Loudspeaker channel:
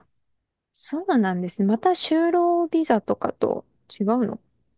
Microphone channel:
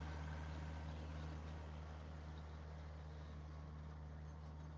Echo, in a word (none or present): none